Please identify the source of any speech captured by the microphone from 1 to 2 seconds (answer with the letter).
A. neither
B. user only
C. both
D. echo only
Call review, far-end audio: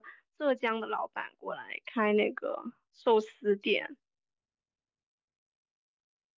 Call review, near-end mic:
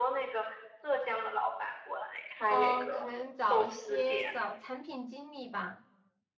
D